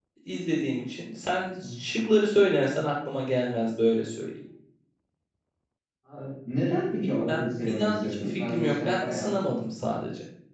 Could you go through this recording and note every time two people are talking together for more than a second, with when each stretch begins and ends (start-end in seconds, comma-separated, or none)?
7.0-9.4